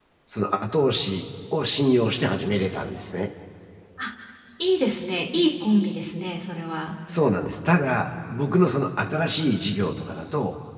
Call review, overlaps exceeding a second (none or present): none